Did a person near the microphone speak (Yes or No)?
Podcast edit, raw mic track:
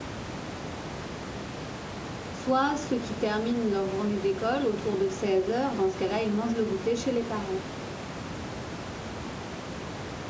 Yes